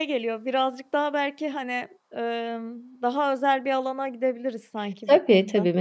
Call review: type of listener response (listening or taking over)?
taking over